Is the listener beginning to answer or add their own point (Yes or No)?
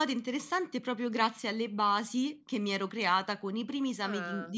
No